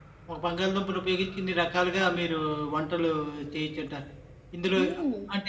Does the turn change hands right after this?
No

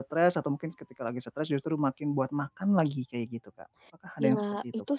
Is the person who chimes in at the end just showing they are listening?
No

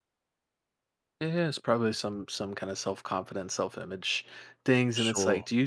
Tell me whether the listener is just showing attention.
Yes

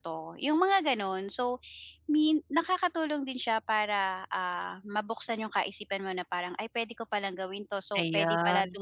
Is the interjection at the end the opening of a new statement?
No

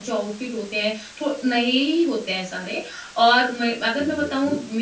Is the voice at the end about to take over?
No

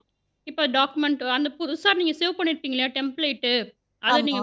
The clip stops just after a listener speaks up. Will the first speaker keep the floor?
Yes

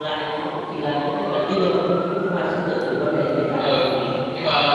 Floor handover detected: Yes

